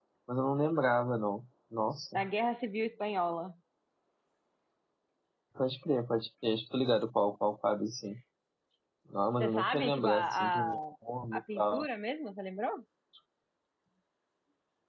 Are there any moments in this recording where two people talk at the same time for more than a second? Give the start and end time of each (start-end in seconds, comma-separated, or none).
9.4-10.7